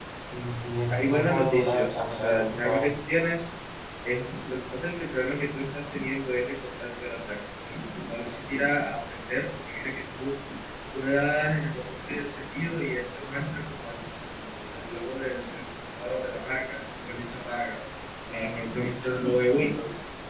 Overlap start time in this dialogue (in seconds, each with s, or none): 0.9 s